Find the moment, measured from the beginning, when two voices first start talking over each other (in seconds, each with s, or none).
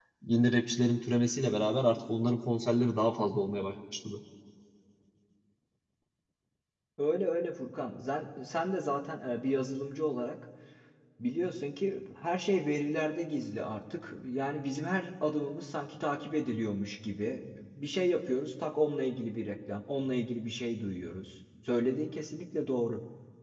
none